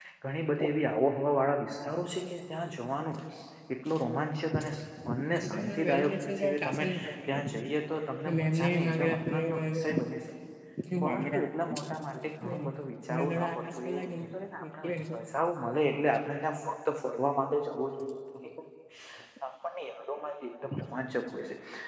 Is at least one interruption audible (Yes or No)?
Yes